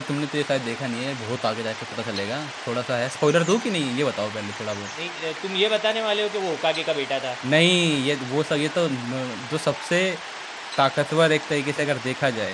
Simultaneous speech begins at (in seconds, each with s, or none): none